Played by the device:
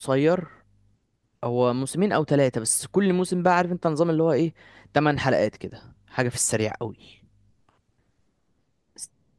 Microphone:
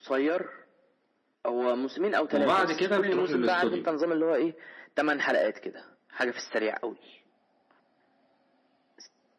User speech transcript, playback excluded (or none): وبعد كده بتروح للاستوديو